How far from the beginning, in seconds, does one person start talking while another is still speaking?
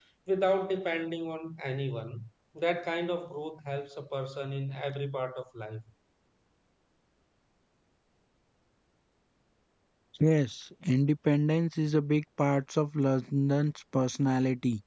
none

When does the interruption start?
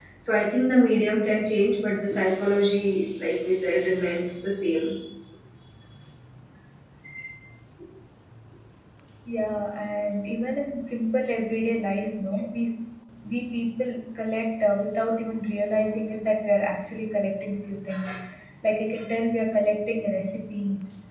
none

